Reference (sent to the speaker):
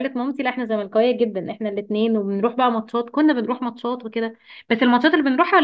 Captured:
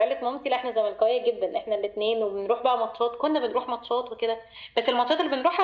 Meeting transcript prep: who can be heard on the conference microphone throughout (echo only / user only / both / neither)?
echo only